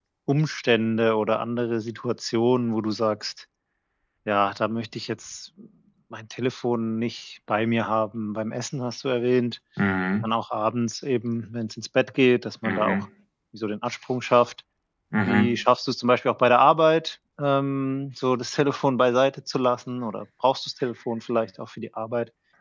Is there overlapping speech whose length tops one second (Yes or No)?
No